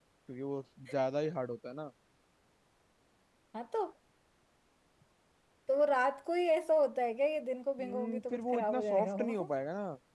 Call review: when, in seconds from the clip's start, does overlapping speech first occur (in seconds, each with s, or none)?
7.8 s